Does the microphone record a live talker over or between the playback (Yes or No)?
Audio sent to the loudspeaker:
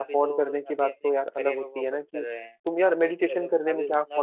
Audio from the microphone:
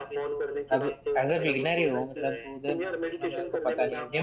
Yes